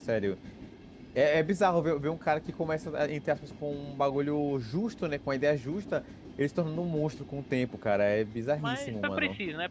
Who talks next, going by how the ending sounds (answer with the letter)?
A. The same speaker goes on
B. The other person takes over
B